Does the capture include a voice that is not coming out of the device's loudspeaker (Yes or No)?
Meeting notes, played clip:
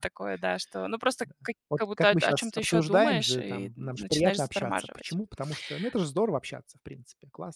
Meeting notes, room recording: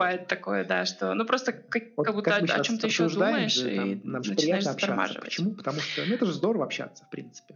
No